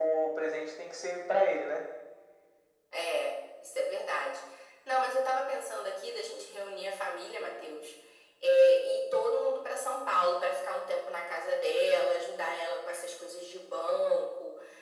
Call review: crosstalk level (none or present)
none